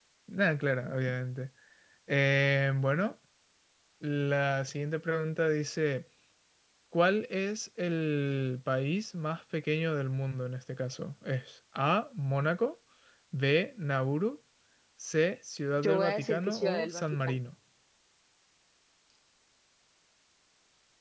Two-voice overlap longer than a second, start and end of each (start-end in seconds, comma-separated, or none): 15.8-17.4